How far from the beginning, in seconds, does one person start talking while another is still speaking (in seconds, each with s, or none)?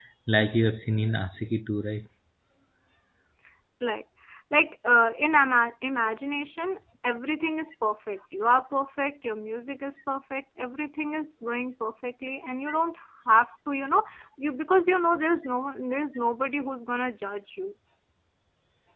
none